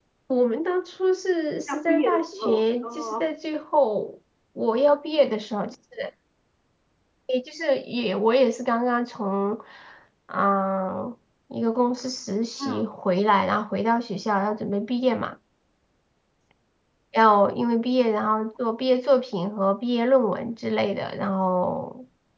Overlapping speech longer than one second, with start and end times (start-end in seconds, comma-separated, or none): 1.7-3.3